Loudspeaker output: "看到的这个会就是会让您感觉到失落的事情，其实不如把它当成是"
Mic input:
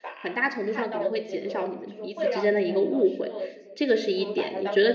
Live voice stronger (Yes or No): Yes